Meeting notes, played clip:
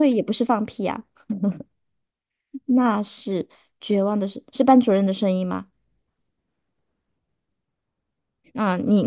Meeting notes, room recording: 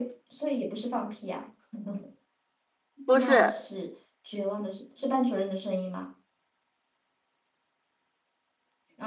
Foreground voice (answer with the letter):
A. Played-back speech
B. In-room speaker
B